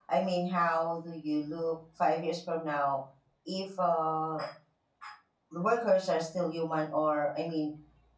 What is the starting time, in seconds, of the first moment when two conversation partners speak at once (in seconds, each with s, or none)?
none